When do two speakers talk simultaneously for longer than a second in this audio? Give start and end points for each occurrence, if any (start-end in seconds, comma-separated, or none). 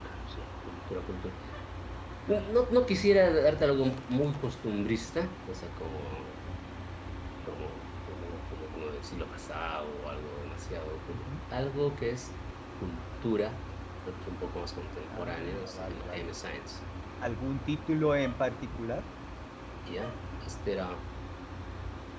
15.1-16.3